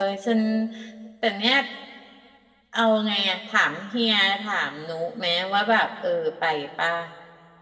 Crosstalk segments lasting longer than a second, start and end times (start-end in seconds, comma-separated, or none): none